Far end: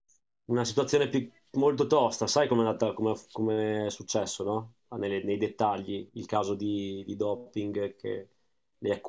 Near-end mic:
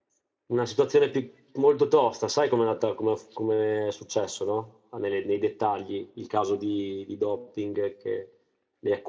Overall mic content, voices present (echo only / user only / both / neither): echo only